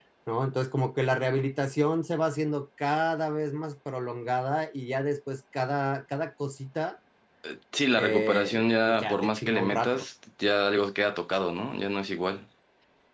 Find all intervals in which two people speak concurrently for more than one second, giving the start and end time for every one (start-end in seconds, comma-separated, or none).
8.0-10.1